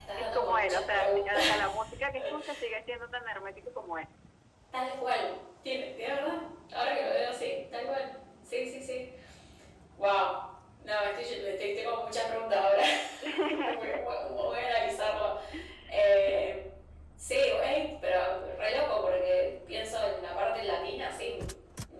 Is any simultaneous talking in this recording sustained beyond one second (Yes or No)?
Yes